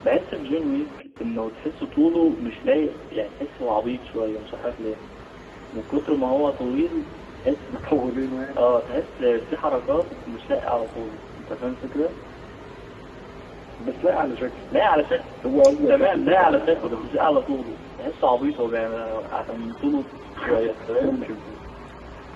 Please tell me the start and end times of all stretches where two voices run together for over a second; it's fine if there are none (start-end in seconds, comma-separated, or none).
15.9-17.2